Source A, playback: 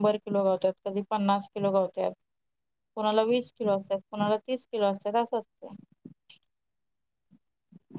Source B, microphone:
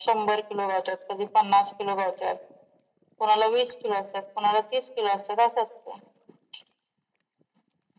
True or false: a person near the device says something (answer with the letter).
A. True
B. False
B